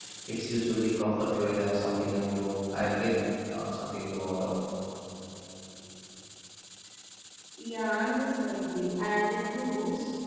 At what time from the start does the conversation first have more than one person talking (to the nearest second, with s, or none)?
none